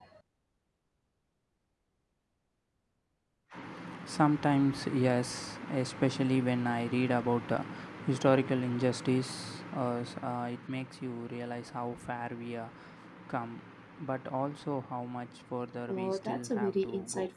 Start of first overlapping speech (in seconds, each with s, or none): 15.9 s